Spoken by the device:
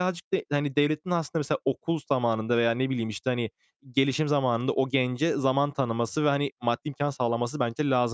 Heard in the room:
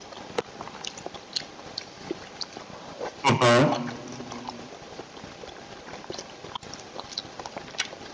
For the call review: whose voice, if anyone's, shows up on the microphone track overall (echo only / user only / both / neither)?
user only